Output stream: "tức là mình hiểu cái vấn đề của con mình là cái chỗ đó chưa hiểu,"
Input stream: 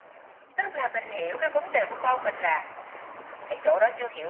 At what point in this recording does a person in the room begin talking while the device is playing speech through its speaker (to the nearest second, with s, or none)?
none